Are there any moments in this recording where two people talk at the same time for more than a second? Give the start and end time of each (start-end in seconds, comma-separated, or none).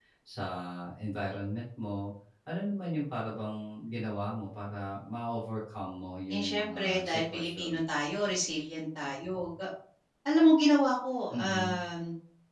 6.3-7.8